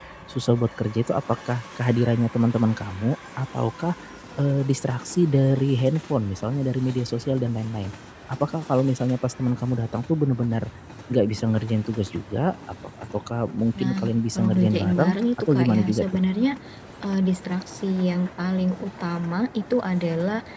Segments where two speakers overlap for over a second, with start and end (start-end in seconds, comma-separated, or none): 13.8-16.1